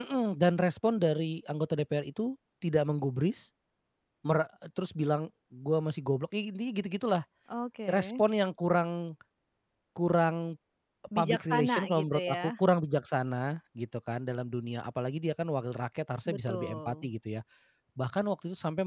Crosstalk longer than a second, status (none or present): present